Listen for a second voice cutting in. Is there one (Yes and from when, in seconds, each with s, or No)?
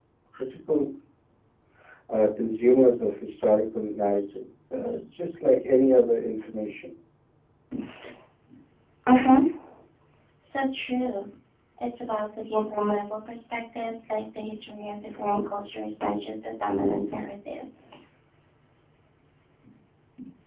No